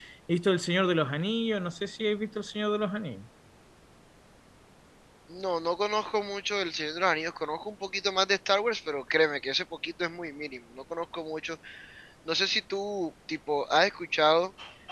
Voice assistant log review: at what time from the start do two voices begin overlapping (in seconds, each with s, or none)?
none